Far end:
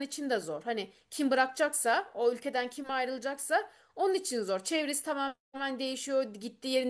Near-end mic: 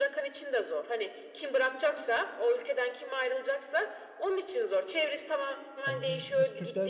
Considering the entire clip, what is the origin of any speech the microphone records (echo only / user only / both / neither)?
both